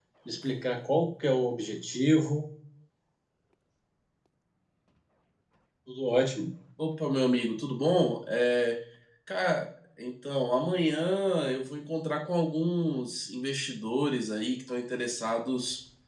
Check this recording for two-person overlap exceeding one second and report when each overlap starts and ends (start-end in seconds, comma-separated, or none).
none